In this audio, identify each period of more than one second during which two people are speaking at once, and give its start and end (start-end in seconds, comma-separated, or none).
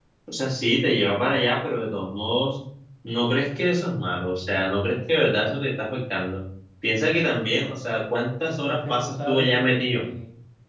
8.6-10.0